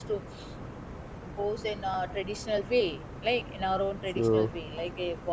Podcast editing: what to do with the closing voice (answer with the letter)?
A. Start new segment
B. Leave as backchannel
B